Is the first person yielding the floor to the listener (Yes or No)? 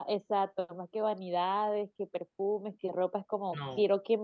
No